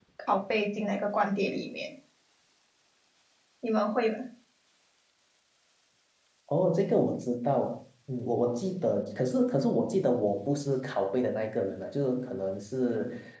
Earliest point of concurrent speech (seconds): none

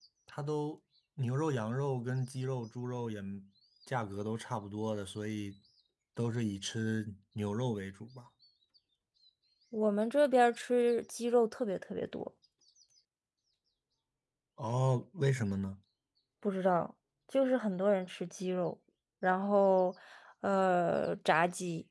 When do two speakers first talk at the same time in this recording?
none

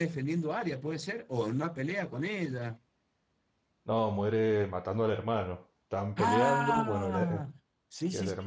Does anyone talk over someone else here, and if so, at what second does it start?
6.2 s

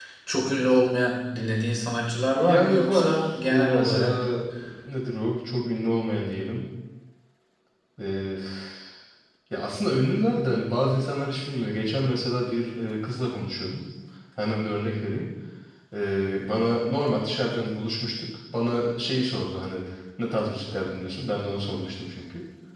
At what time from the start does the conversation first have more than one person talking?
2.4 s

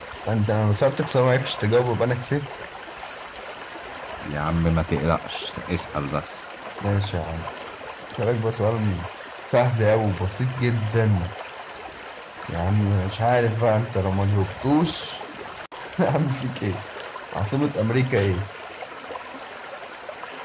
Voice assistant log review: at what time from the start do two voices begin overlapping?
none

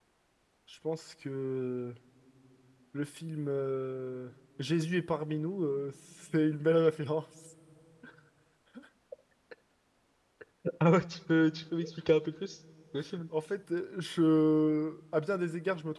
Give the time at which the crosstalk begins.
none

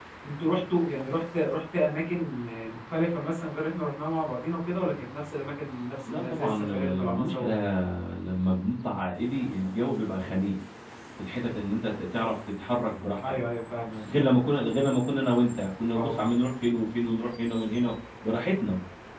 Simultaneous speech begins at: 6.1 s

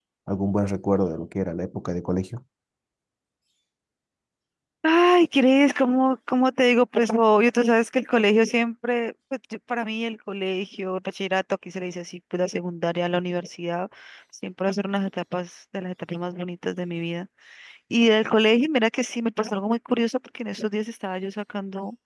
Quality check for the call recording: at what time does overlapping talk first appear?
none

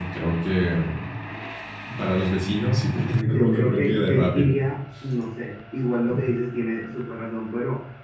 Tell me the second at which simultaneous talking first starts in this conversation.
2.9 s

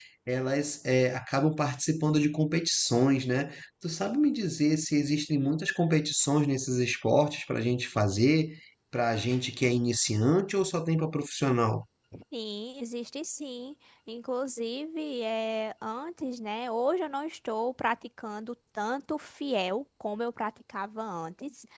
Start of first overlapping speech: none

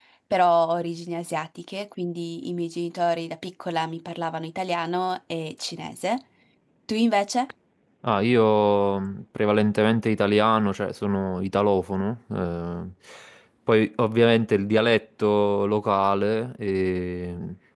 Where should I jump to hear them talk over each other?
none

